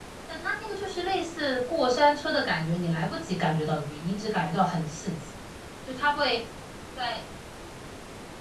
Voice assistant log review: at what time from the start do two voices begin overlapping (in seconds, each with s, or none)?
none